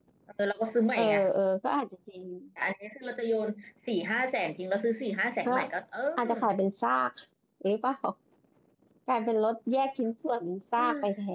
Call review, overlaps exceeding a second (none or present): none